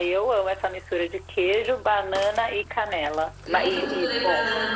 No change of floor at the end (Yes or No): No